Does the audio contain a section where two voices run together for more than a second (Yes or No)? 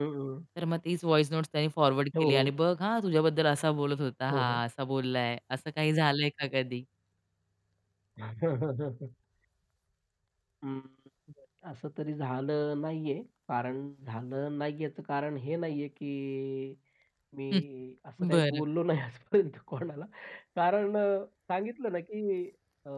No